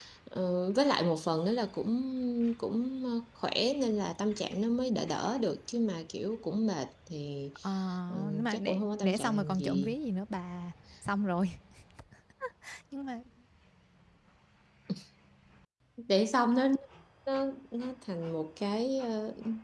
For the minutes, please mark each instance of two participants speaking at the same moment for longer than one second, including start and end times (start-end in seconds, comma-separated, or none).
8.3-10.0